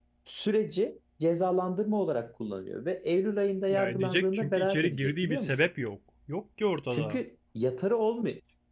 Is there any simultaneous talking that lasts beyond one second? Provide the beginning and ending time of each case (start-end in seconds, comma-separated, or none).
3.7-5.5